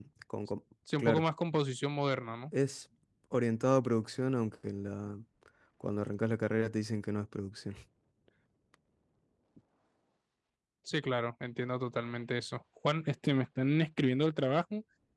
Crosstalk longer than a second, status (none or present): none